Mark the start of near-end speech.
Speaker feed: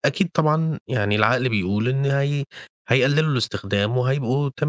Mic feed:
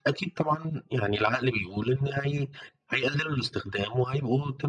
none

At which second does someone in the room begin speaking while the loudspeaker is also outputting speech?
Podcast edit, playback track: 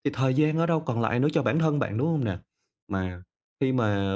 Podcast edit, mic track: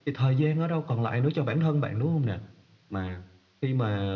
none

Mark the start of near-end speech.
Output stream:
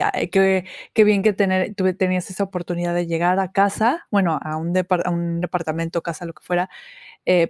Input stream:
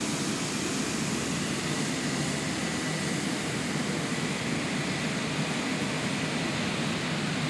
none

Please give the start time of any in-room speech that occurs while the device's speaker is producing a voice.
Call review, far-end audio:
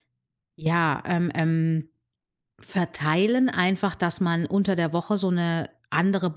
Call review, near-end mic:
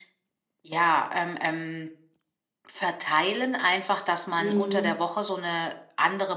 4.4 s

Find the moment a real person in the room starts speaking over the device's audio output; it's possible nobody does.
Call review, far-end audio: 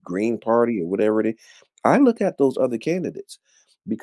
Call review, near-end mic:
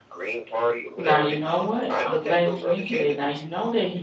1.0 s

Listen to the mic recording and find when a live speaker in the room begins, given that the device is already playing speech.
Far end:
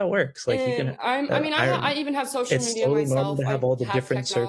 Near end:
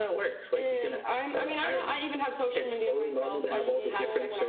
3.5 s

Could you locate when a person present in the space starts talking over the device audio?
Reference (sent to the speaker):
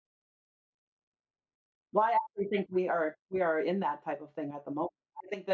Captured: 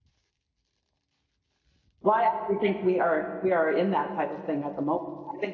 none

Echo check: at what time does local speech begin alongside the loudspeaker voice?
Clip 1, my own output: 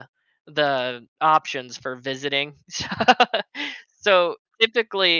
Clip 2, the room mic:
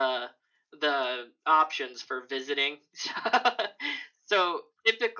none

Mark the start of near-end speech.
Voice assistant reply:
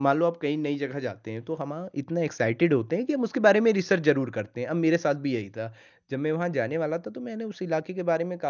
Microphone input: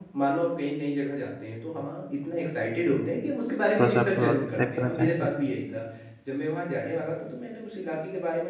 3.8 s

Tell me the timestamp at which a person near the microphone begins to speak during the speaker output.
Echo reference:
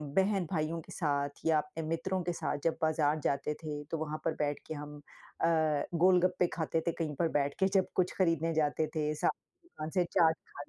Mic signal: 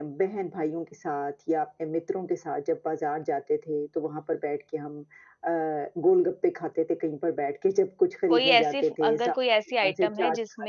8.3 s

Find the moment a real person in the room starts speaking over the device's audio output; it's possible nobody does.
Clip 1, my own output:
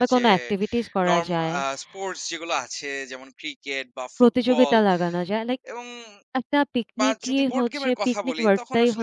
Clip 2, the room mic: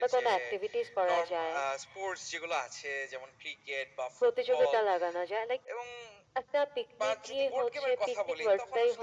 none

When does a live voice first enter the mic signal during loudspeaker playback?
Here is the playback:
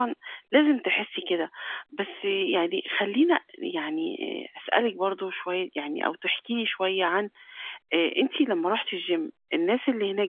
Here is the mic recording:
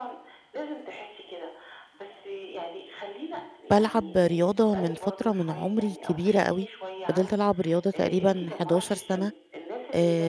3.7 s

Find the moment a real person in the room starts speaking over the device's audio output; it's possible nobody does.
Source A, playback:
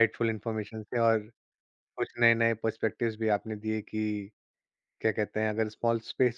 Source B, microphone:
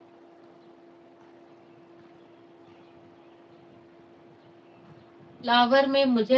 5.4 s

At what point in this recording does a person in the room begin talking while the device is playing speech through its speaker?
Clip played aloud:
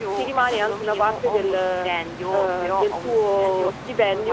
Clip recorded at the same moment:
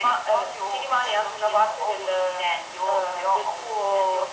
none

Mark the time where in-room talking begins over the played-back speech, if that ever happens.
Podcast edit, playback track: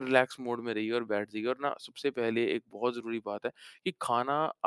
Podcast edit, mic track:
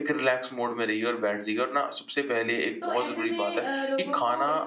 2.8 s

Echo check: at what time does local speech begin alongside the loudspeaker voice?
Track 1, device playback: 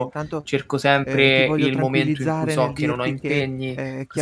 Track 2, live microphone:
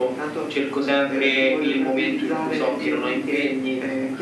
none

